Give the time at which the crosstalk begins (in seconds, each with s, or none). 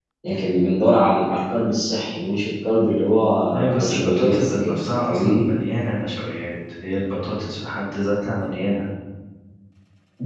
3.5 s